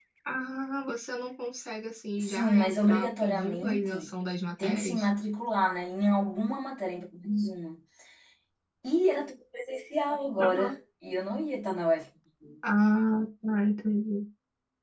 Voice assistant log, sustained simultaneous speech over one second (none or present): present